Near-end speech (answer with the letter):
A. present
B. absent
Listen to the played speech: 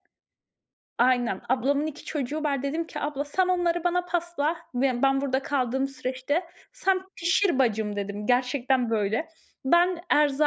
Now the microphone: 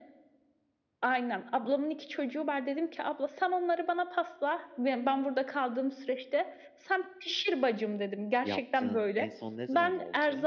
A